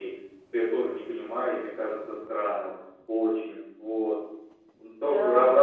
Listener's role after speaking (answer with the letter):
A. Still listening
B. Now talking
A